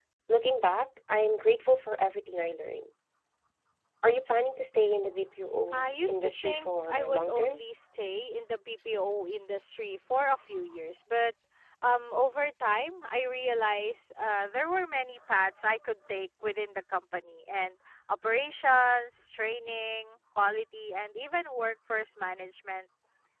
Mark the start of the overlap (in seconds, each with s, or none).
5.7 s